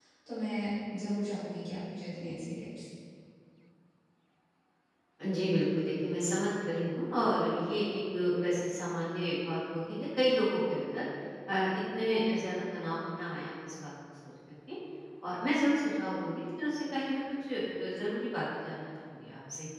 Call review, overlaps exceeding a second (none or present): none